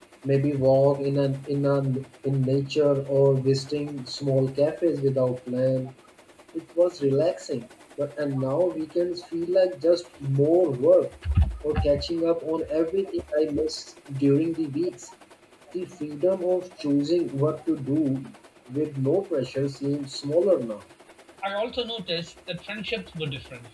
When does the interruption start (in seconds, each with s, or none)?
none